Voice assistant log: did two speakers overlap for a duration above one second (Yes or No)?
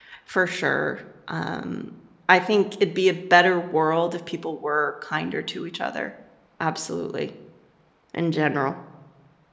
No